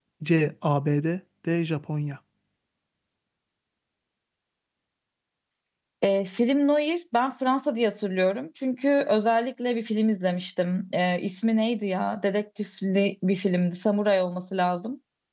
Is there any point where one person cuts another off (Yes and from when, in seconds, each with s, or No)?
No